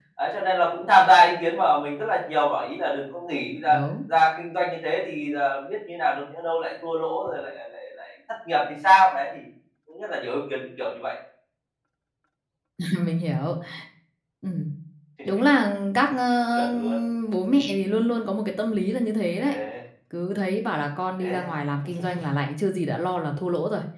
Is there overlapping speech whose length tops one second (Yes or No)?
No